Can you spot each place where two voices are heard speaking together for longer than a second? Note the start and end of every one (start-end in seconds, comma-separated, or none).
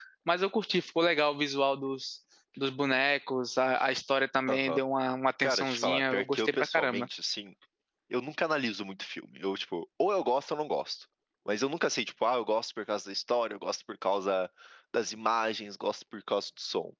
5.4-7.1